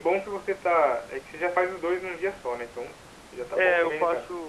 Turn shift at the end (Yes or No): Yes